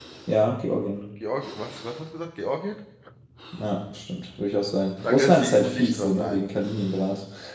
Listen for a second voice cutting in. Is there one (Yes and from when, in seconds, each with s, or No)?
Yes, from 5.0 s